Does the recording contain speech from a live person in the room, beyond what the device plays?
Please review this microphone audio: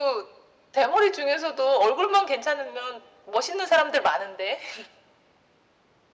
No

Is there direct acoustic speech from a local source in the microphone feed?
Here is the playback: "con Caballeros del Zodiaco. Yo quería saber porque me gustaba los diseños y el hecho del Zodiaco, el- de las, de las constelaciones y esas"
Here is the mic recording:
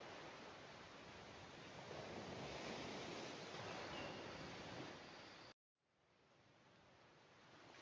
No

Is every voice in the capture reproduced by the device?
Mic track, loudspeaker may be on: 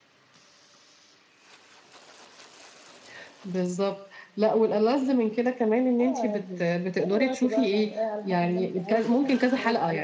Yes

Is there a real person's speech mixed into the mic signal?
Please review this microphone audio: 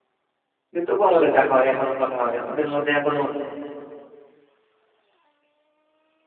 Yes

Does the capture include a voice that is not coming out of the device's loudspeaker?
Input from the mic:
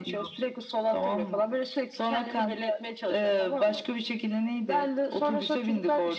No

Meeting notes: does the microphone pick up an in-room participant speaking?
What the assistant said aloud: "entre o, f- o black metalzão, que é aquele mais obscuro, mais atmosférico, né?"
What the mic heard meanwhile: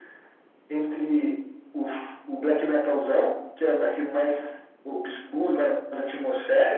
No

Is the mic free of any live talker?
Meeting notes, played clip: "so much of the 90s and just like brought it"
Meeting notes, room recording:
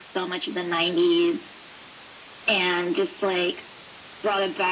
Yes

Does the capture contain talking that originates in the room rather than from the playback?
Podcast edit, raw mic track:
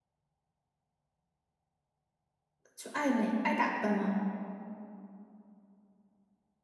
Yes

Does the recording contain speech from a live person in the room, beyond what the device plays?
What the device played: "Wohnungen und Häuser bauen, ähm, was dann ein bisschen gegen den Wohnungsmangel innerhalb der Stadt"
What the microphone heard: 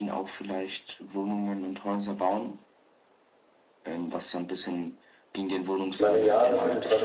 Yes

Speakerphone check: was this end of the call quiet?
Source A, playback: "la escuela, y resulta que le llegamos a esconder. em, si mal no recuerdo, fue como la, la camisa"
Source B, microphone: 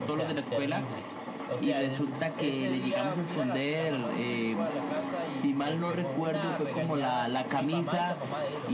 No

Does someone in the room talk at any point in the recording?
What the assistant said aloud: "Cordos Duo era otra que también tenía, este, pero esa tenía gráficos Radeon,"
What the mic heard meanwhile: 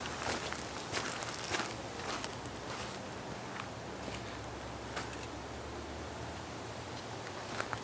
No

